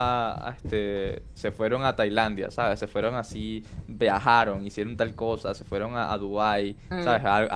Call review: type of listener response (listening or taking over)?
listening